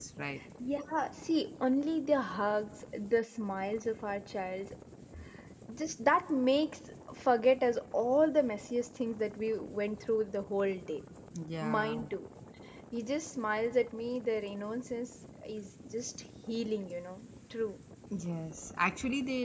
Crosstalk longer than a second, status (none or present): none